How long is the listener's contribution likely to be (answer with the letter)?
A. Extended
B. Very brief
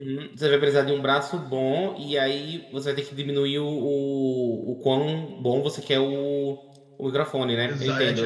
A